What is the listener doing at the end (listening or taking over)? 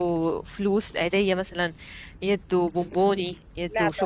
listening